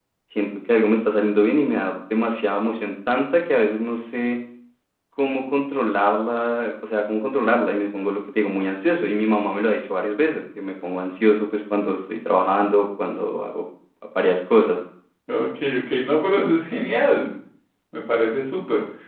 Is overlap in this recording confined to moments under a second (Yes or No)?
Yes